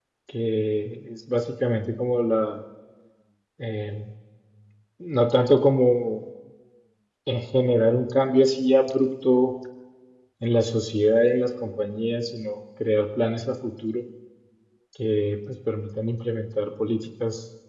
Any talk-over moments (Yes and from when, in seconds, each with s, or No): No